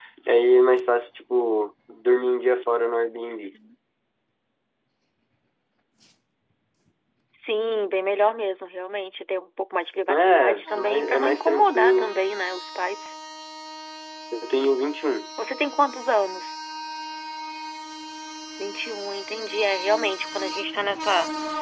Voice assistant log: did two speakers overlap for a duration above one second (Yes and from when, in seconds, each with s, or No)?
Yes, from 10.1 s